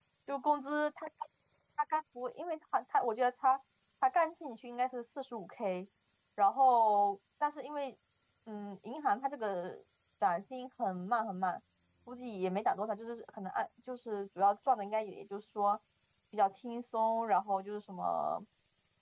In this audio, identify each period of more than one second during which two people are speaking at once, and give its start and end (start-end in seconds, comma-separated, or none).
none